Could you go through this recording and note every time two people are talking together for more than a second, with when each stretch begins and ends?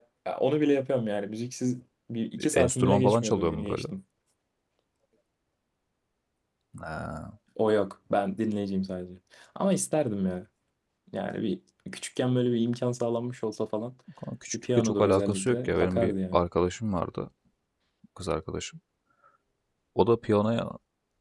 2.4-3.8, 14.5-16.4

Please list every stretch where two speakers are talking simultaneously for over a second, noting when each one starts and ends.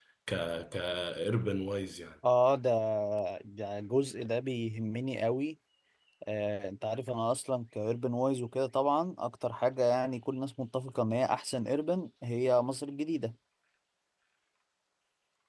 none

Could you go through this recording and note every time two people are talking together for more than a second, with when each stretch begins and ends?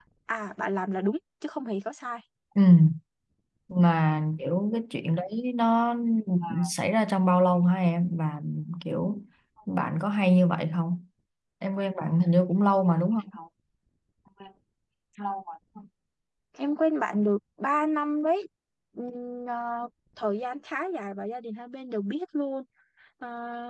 none

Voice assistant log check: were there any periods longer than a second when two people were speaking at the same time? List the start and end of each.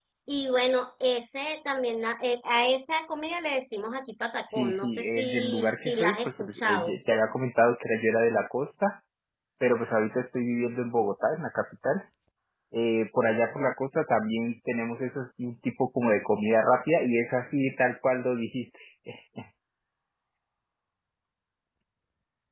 4.6-7.0

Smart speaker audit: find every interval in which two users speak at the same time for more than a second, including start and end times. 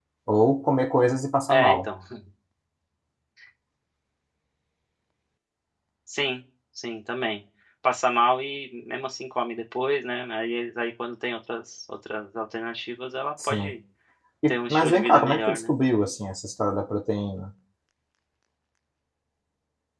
14.5-15.7

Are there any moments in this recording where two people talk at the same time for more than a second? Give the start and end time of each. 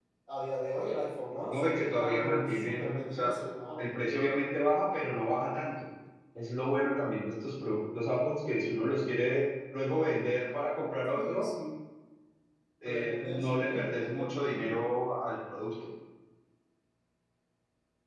1.5-3.3, 12.8-14.8

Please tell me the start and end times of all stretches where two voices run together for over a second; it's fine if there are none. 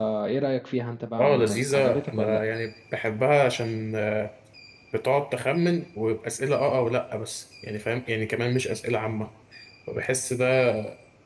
1.2-2.4

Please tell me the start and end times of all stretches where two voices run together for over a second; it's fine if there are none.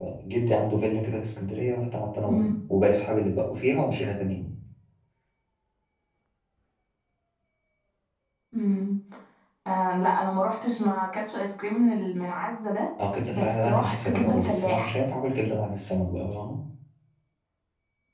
13.3-14.9

